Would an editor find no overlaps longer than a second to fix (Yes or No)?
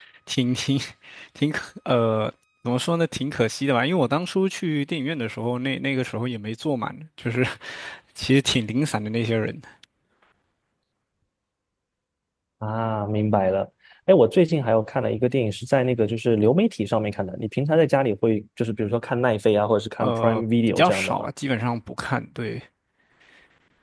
No